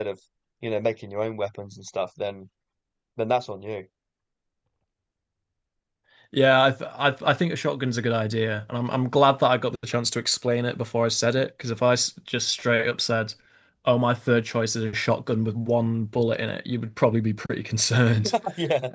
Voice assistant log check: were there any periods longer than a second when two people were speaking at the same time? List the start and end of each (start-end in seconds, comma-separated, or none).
none